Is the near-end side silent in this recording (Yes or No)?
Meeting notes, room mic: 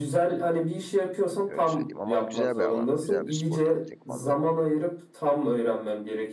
No